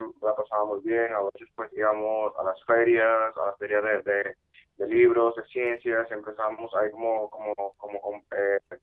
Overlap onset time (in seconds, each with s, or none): none